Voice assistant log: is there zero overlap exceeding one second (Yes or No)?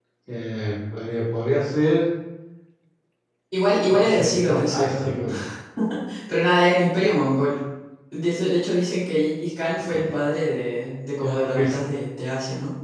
No